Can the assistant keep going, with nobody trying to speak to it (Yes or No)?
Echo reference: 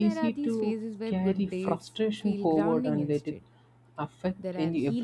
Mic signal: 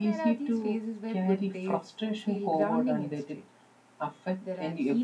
Yes